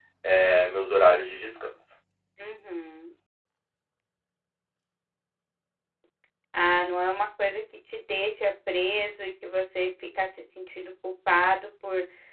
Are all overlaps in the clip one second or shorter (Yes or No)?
Yes